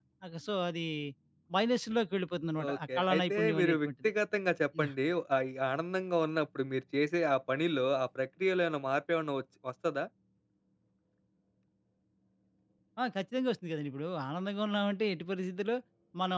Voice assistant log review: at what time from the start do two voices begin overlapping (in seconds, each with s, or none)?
2.6 s